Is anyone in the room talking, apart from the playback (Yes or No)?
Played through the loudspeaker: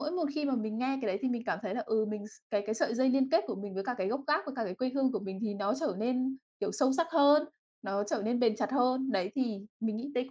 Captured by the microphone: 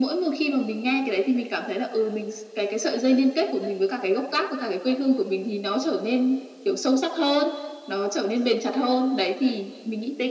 No